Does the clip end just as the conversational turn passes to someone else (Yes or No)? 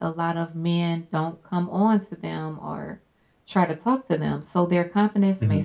No